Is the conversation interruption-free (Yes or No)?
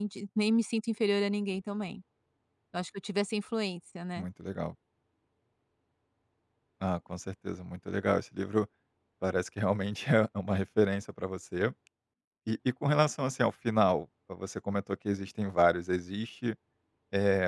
Yes